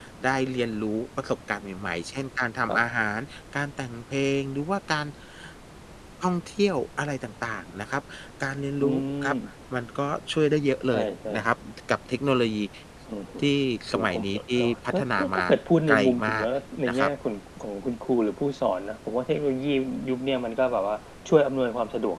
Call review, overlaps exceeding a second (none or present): present